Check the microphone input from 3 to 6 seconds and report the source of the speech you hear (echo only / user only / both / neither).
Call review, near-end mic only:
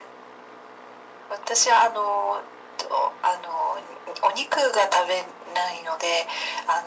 echo only